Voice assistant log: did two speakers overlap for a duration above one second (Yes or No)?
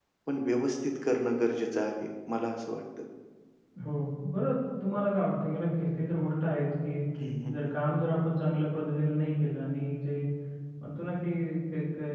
No